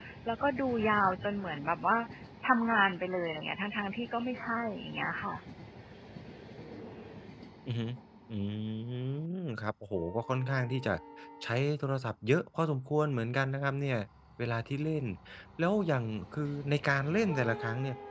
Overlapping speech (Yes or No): No